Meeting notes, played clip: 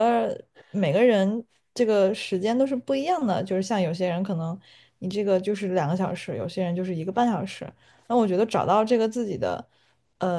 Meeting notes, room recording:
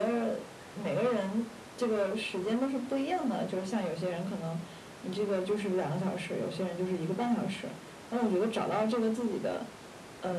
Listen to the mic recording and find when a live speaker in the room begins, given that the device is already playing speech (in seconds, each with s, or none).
none